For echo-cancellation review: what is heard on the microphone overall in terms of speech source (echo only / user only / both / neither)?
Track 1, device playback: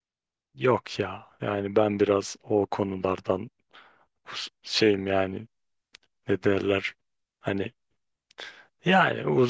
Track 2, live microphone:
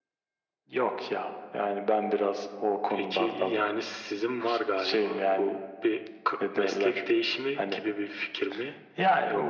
both